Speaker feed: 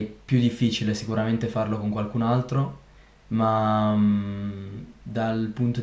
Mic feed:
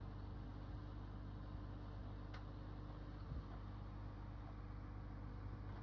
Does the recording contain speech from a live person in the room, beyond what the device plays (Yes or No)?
No